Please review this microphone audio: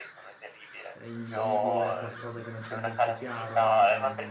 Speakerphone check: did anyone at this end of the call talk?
Yes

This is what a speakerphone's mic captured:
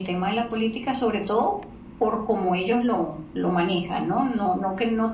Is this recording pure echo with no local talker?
Yes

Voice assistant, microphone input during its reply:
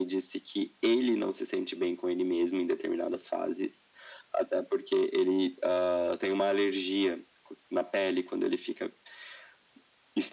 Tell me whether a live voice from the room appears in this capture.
No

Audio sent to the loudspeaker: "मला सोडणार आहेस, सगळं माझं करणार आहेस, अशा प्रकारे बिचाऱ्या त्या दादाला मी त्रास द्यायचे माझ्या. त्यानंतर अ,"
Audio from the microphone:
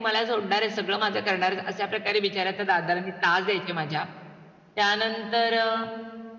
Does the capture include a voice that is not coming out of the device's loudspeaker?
No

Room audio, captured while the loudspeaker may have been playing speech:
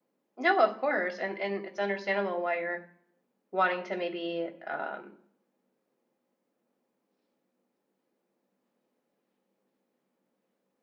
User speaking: Yes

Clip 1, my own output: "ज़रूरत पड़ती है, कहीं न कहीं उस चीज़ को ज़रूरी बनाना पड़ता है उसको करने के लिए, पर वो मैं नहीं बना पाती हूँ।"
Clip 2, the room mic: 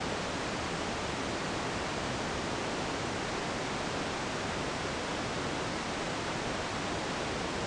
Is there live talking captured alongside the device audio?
No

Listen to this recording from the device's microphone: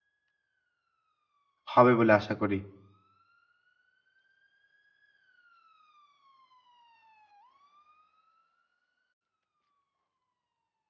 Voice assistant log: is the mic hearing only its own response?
No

